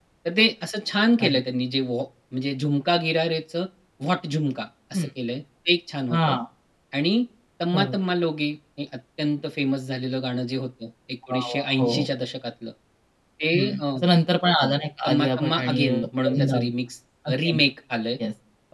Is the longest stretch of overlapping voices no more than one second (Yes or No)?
No